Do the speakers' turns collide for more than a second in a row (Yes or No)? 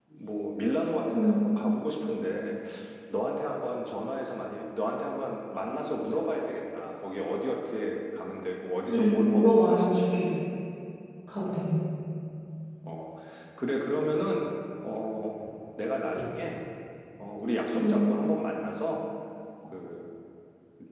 Yes